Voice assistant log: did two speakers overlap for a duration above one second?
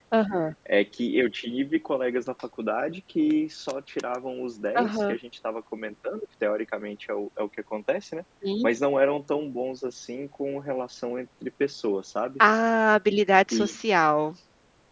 No

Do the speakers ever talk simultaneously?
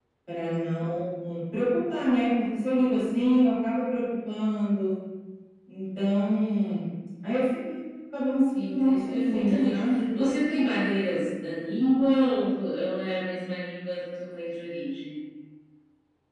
Yes, from 8.6 s

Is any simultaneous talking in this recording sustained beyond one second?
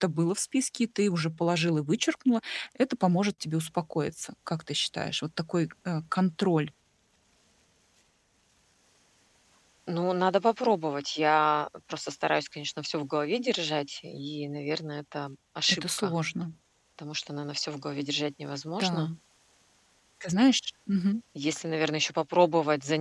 No

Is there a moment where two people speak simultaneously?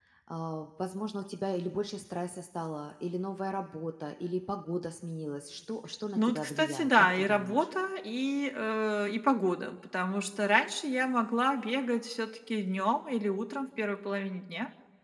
Yes, from 6.2 s

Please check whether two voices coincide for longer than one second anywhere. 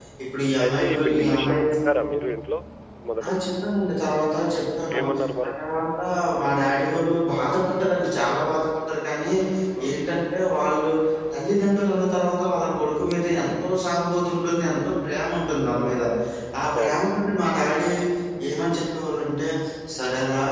Yes, from 0.6 s

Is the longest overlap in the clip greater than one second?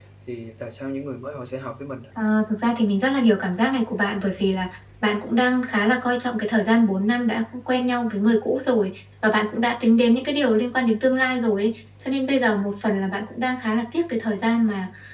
No

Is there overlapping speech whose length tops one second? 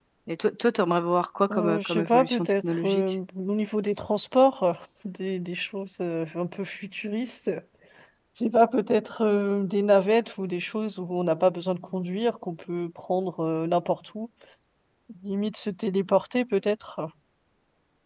Yes, from 1.5 s

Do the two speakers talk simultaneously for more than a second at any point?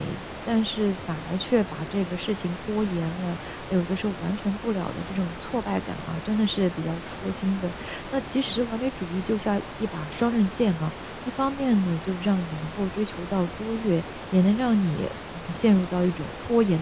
No

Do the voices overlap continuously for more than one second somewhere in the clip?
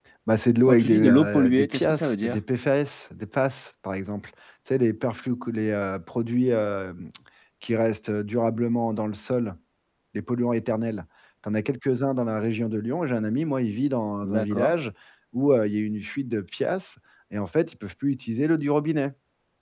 Yes, from 0.7 s

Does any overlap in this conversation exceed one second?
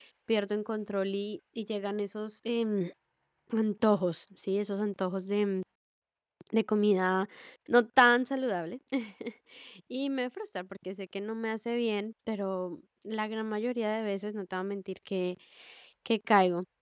No

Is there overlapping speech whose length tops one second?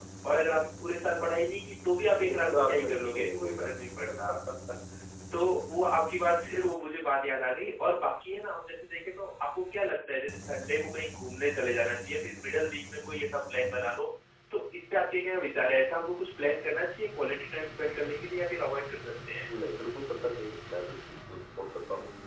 Yes, from 2.3 s

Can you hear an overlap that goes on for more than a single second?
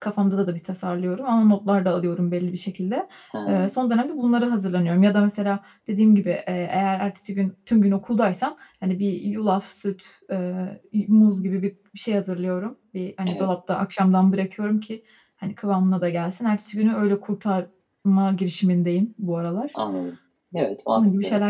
No

